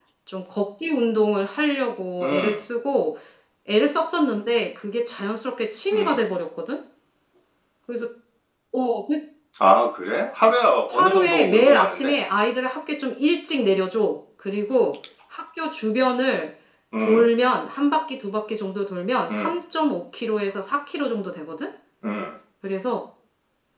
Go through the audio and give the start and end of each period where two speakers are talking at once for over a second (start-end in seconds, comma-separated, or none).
10.9-12.1